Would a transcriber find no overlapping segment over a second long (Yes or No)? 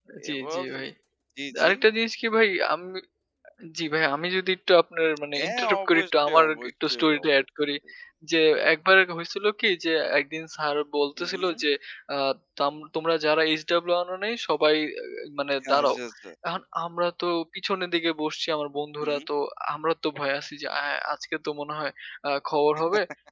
No